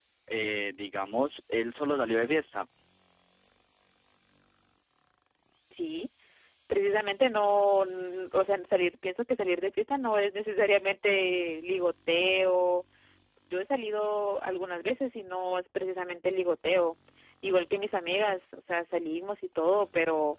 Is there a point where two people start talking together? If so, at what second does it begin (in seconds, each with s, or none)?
none